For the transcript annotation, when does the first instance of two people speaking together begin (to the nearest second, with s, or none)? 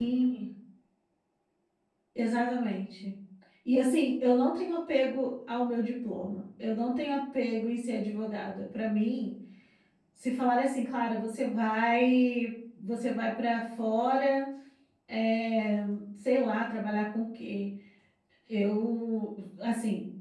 none